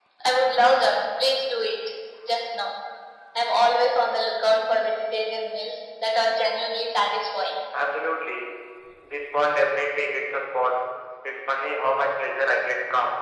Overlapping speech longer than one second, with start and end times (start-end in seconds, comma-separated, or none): none